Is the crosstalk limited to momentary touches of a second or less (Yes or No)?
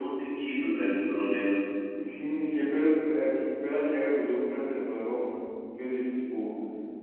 Yes